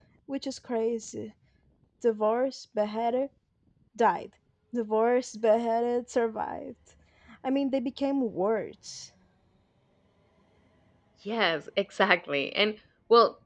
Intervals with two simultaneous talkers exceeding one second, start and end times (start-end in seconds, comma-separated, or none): none